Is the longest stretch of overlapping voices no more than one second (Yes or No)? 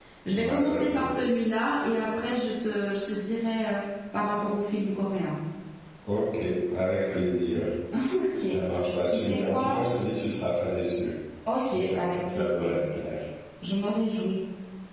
No